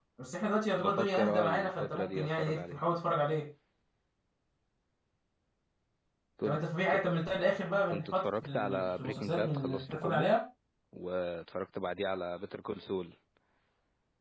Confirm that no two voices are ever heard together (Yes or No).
No